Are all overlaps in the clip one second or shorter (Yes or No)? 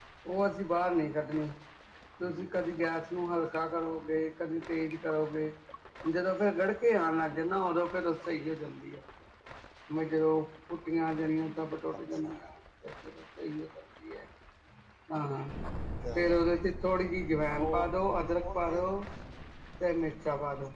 Yes